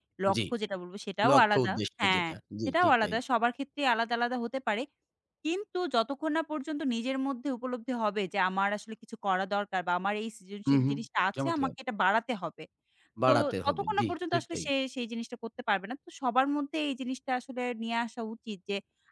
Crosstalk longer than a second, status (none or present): present